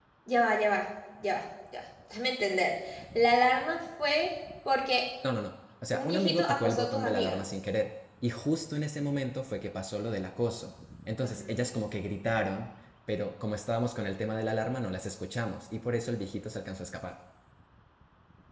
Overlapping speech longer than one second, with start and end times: 5.9-7.4

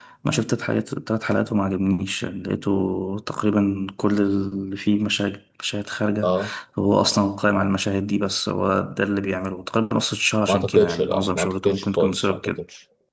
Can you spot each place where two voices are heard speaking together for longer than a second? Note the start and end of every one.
10.5-12.5

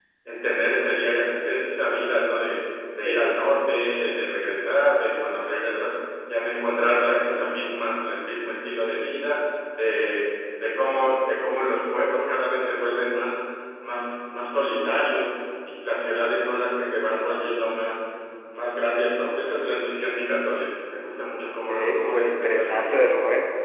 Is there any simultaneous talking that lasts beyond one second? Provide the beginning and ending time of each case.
21.5-23.1

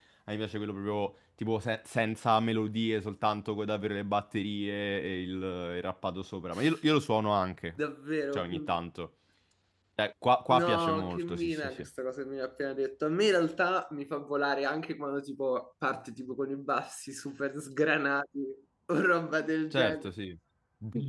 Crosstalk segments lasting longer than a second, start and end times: 10.5-11.8

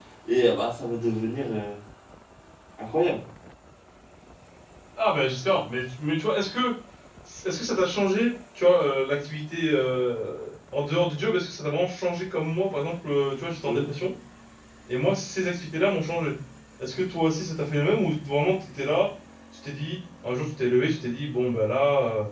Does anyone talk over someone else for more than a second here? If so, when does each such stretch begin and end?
none

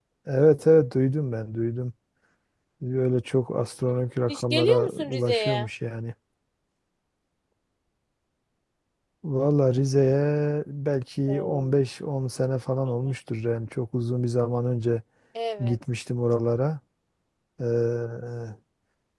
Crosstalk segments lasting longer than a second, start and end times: 4.3-5.7

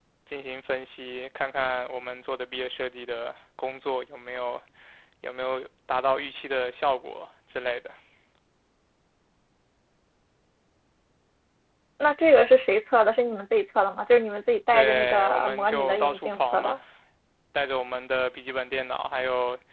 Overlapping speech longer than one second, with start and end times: 14.7-16.8

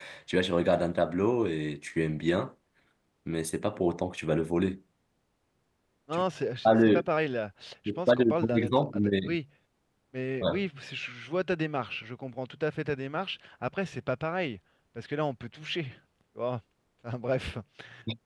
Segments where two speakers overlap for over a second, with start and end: 7.9-9.3

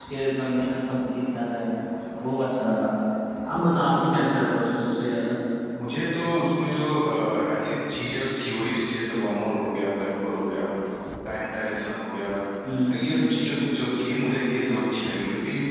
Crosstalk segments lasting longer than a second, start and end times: none

